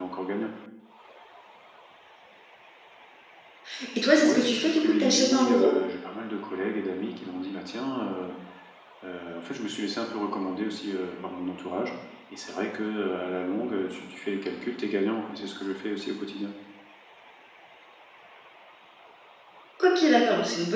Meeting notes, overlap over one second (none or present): present